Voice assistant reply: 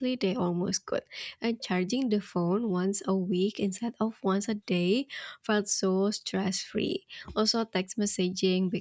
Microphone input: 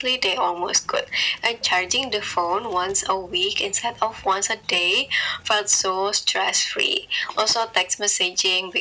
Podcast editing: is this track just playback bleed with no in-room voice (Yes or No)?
Yes